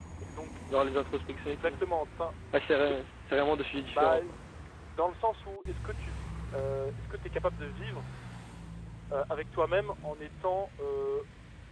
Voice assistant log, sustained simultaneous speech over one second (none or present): none